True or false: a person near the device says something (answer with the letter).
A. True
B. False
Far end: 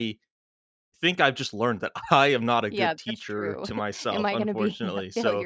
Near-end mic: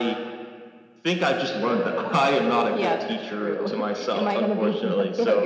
B